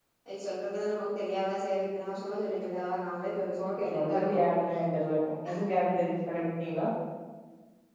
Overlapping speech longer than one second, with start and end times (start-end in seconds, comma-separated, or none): none